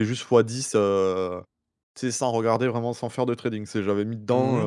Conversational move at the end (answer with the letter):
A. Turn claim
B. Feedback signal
A